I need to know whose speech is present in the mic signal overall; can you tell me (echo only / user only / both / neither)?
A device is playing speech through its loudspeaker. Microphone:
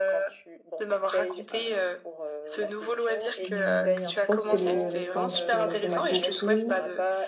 both